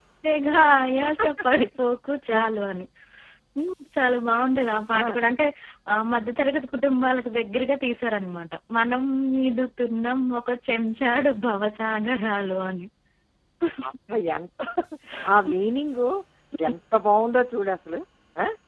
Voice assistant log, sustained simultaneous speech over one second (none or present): none